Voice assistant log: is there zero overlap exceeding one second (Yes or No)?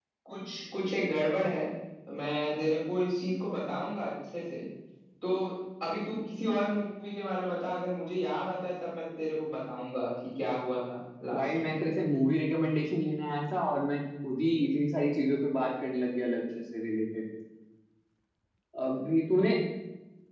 Yes